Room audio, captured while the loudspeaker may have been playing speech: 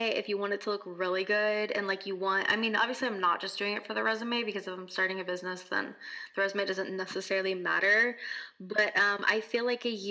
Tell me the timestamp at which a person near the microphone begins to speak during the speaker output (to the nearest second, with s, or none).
none